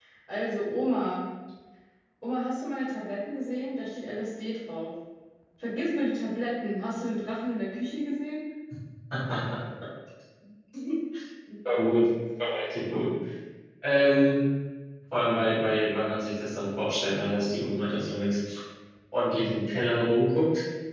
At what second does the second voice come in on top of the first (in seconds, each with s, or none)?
none